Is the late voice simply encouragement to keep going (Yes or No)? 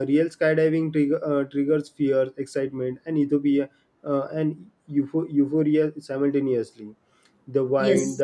Yes